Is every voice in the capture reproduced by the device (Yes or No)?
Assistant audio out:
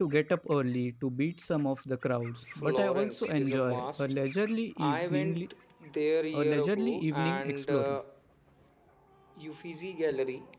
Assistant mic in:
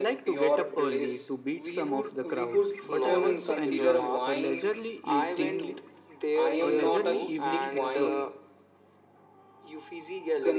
No